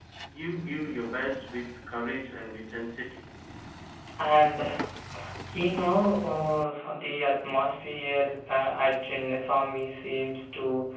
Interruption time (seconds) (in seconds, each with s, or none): none